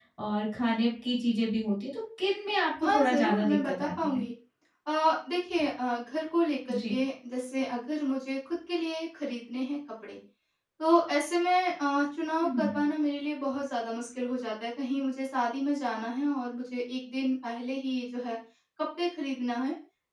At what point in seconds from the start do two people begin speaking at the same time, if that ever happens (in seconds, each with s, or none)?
2.8 s